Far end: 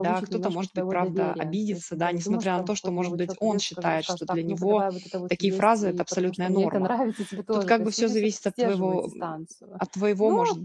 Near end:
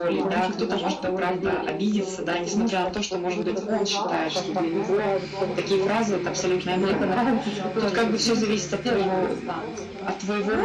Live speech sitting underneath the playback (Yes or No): Yes